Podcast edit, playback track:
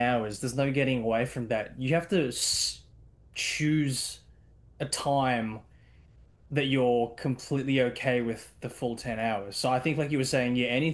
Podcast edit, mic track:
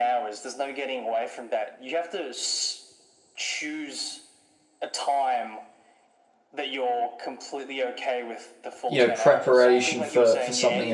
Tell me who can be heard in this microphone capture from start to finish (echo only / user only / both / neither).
both